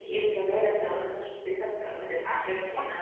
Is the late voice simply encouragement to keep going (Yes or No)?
No